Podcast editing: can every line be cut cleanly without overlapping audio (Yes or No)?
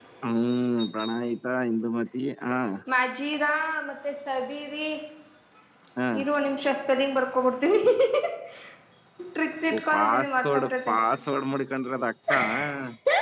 No